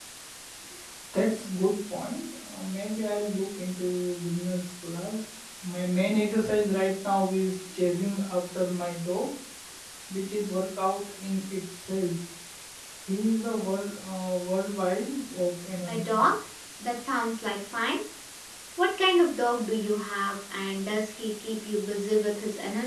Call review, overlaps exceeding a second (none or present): none